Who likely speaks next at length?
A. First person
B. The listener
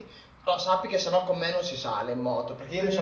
A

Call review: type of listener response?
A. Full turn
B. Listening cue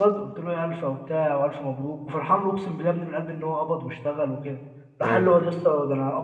B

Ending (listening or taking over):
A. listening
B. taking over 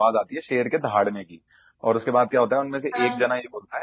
A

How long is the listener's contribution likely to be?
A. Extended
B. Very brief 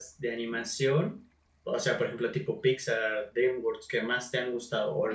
A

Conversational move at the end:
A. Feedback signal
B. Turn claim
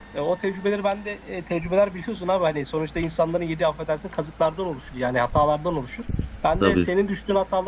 A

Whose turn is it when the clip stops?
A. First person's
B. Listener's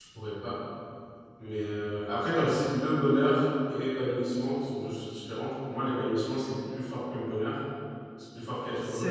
A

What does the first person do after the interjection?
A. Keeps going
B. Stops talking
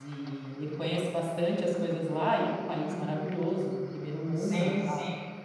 B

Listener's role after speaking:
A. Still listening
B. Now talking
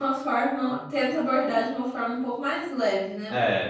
B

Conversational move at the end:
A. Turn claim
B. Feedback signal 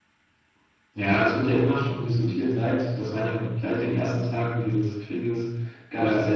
B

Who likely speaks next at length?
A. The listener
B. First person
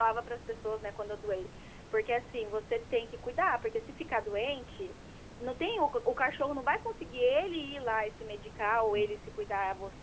B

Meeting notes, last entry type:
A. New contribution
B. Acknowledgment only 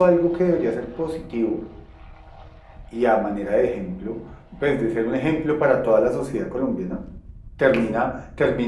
B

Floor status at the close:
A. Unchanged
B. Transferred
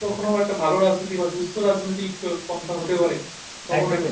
B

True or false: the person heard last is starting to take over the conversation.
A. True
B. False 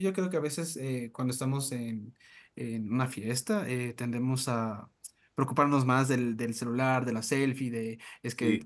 B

